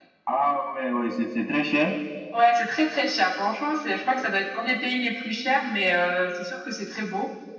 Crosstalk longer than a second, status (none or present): none